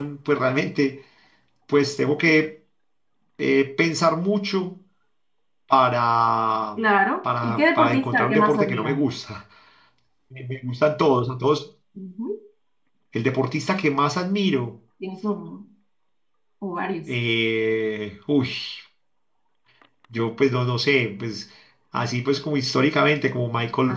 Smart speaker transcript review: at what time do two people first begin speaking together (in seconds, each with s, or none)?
7.4 s